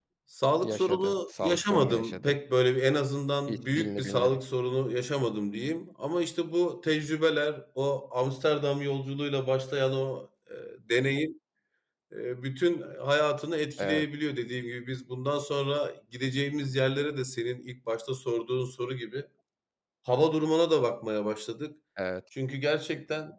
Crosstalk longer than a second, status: present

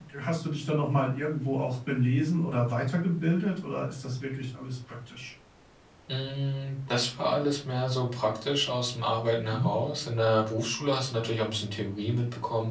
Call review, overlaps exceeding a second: none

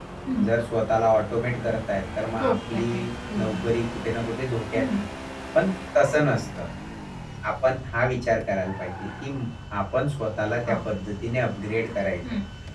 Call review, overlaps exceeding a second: present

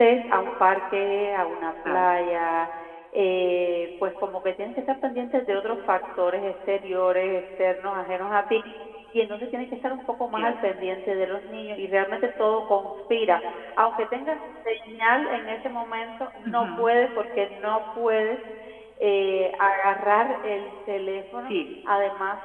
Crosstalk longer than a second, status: none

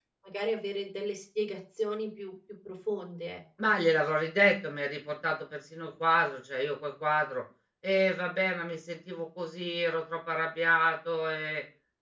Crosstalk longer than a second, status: none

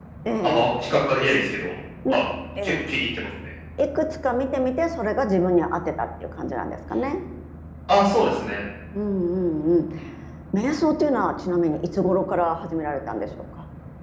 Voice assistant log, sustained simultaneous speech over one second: none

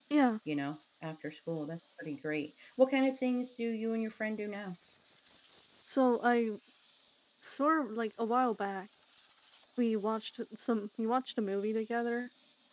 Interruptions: none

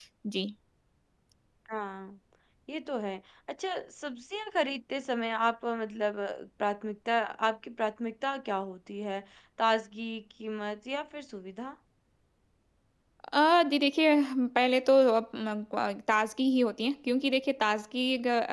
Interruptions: none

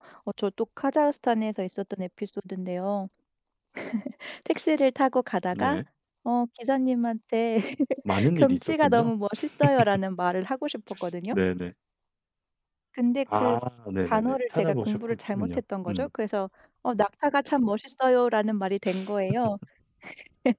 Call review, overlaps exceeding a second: present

